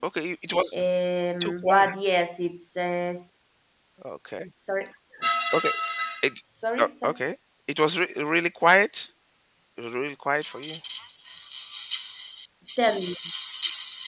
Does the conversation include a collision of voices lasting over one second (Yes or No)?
No